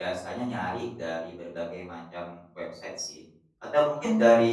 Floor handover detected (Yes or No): No